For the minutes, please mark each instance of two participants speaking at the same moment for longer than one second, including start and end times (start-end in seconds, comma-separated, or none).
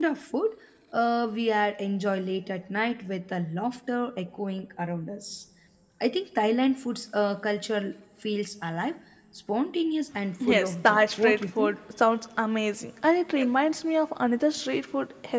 10.5-11.8